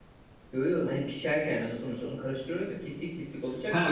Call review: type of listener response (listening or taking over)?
taking over